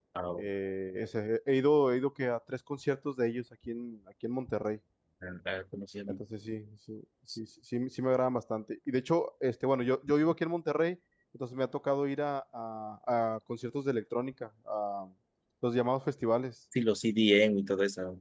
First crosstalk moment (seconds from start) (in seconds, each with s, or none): none